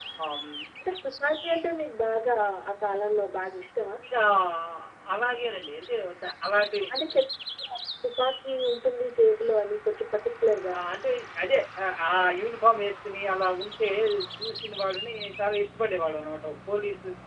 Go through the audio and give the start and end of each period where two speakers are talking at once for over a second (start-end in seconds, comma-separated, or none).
none